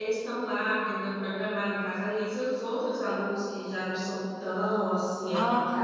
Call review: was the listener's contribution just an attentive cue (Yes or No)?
No